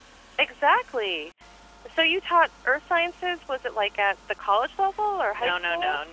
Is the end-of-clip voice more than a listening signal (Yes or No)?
Yes